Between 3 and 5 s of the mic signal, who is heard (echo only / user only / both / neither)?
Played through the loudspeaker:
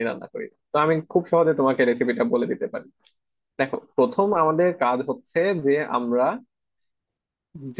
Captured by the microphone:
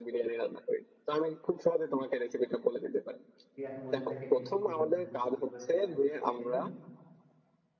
both